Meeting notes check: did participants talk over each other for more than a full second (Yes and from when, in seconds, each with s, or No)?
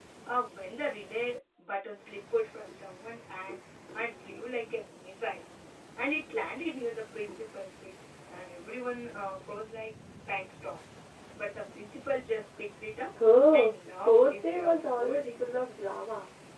Yes, from 13.5 s